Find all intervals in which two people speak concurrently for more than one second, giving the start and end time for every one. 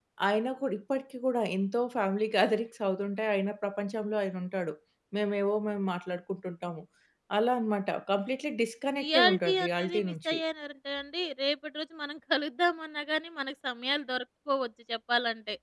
9.0-10.4

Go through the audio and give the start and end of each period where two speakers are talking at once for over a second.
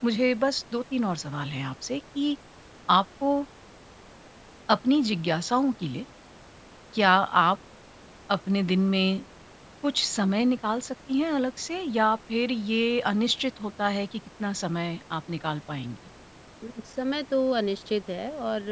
none

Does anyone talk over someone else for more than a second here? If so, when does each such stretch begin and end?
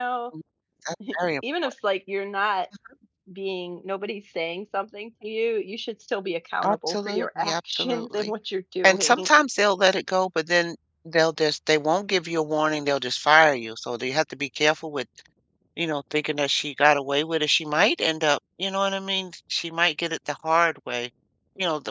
6.6-8.3

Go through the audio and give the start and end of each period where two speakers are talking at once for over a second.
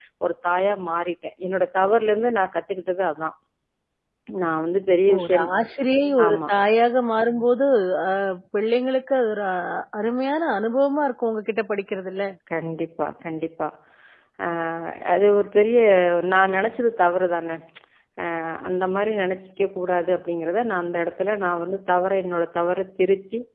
none

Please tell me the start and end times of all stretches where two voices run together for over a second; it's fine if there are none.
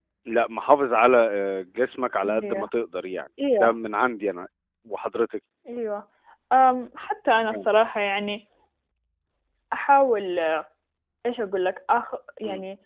none

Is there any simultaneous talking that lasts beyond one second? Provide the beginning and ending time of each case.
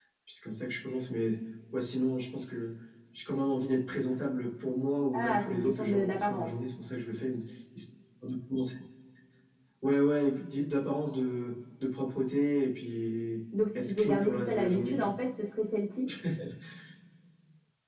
5.1-6.5, 13.8-15.1

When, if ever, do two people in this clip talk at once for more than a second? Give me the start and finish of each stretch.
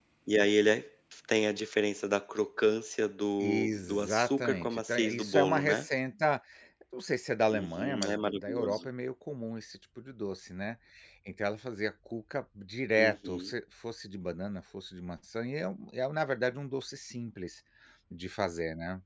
3.4-5.8, 7.5-8.9

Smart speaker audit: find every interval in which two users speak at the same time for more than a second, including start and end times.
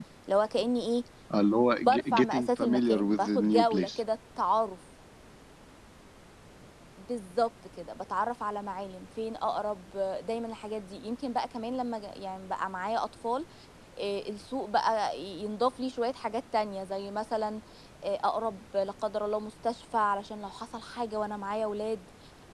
1.9-4.0

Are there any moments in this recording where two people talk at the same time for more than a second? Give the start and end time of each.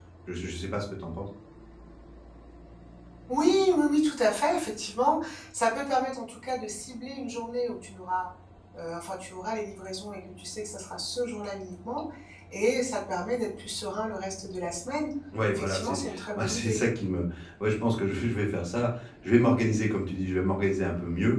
15.5-16.8

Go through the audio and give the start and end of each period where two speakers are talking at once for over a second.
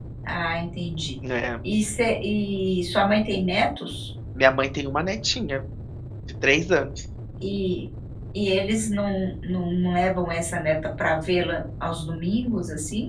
none

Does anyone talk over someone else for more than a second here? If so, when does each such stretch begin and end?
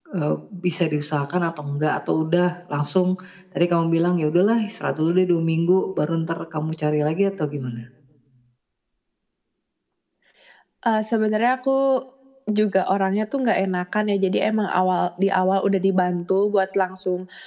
none

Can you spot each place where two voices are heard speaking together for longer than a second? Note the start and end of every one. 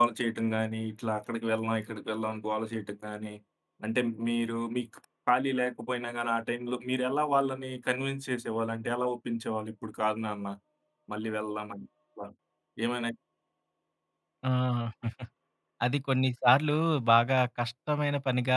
none

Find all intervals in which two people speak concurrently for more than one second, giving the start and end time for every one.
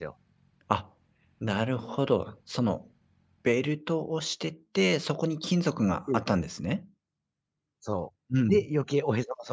none

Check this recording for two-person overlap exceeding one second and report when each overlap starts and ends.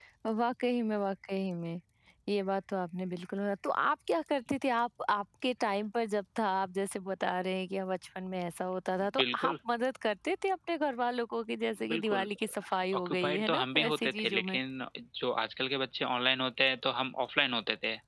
12.9-14.6

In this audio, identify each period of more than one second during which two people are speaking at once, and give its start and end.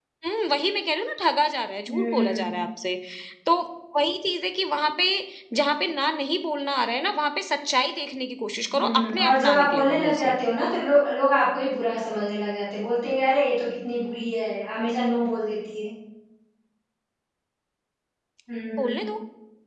8.8-10.3

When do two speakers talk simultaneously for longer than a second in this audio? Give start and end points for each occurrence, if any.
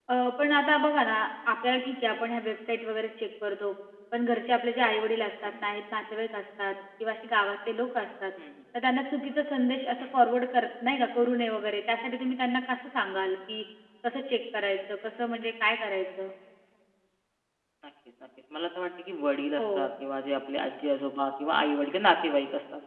none

